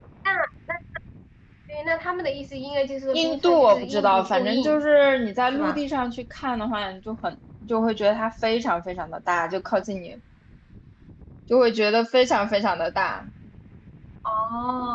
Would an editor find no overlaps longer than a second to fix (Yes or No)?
No